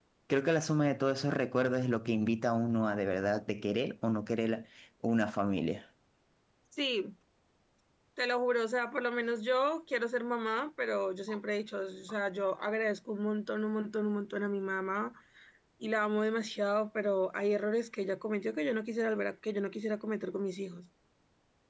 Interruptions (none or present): none